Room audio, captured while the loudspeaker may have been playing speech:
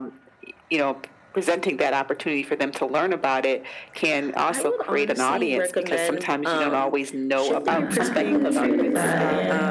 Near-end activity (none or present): present